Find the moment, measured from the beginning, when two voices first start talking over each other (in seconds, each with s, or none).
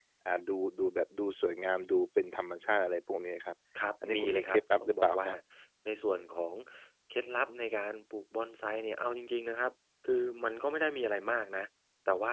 4.0 s